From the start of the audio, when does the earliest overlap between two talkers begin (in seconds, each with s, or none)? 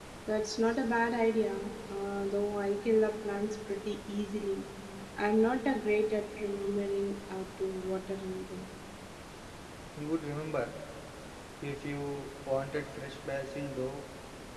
none